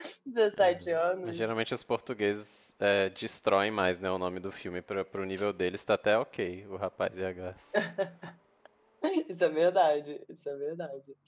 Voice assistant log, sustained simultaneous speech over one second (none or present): none